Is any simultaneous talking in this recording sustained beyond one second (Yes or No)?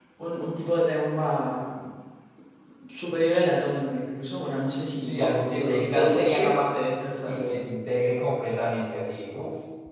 Yes